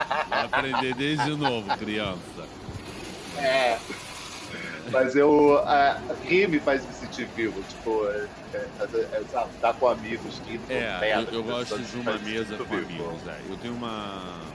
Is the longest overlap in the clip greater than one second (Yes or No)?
Yes